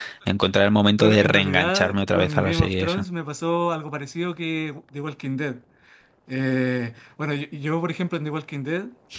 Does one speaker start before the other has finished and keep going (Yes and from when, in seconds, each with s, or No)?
Yes, from 1.0 s